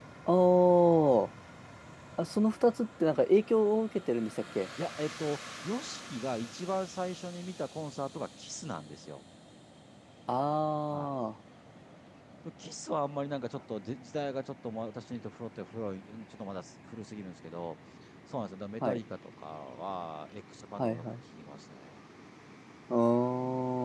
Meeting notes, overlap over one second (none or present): none